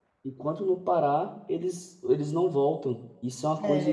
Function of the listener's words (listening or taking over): taking over